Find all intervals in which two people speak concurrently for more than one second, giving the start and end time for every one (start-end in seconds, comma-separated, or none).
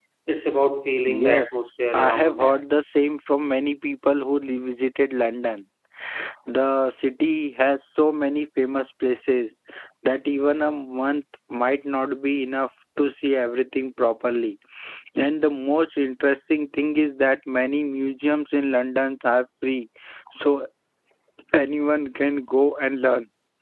1.1-2.7